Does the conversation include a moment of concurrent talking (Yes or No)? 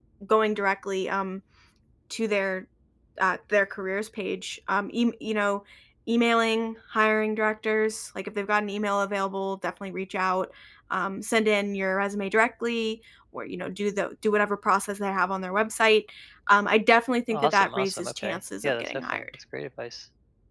Yes